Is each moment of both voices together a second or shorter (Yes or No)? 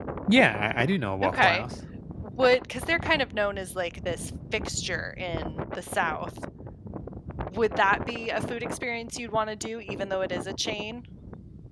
Yes